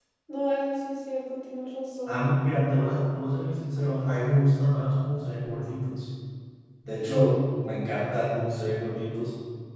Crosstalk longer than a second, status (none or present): none